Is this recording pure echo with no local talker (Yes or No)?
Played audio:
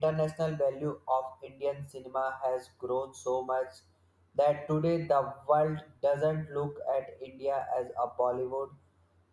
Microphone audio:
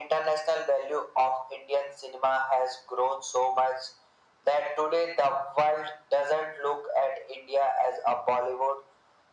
Yes